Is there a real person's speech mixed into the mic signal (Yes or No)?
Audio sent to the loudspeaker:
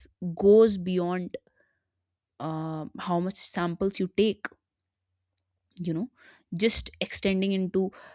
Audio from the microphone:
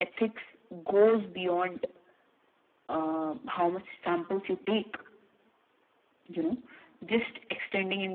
No